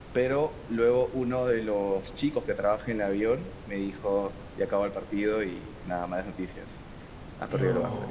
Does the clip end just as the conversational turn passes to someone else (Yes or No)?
No